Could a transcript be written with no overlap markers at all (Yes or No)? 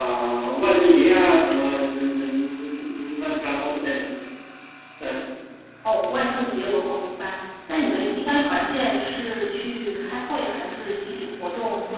Yes